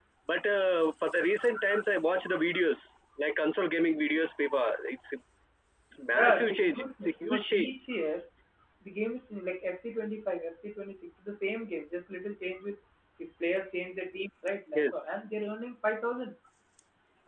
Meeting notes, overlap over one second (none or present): present